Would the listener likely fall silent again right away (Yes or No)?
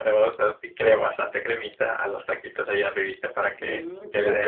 No